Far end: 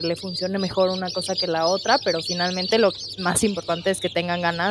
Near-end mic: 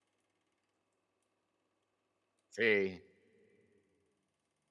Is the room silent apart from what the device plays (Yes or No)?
No